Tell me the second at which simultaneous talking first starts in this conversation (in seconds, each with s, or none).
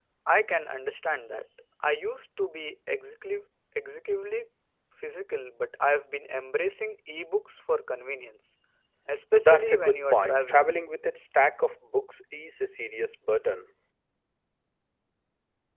9.4 s